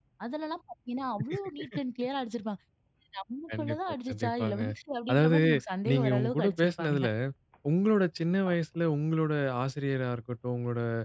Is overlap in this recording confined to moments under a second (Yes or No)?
No